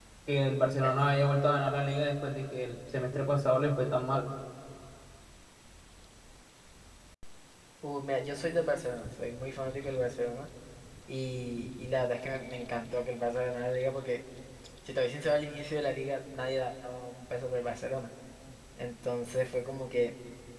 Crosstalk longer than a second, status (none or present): none